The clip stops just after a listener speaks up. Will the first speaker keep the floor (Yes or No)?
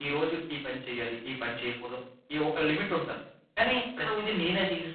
Yes